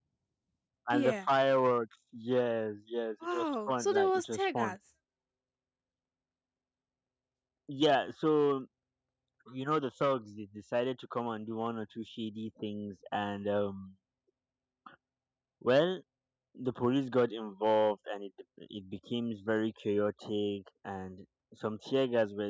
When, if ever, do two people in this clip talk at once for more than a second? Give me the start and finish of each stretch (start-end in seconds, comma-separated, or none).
3.2-4.4